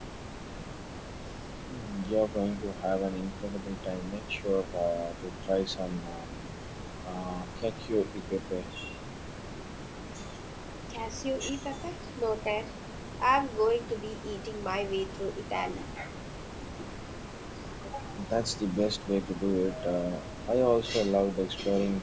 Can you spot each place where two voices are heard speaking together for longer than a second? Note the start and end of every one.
none

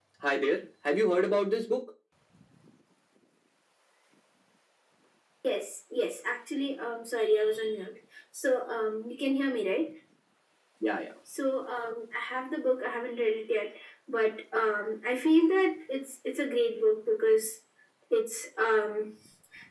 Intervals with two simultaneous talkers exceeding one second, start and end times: none

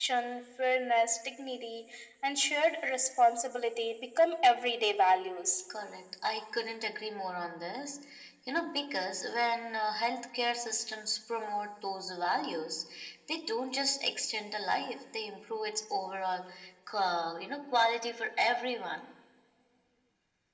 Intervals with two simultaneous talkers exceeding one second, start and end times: none

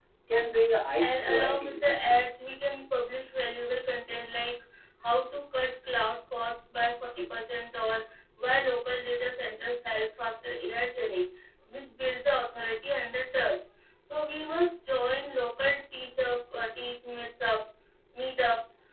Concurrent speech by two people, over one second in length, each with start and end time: 1.0-2.5

